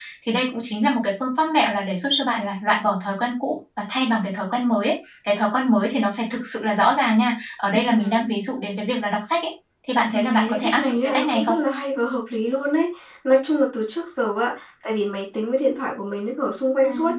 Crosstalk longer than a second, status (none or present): present